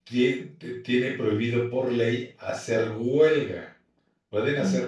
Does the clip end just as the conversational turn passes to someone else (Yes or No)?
No